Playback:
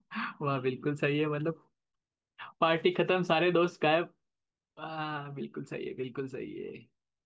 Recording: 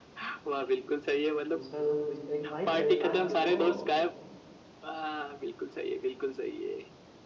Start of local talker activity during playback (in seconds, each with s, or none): 1.5 s